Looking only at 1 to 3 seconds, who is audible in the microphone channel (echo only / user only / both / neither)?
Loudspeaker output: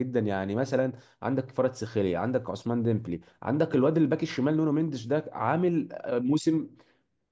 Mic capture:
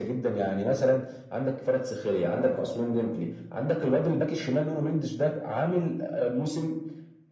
echo only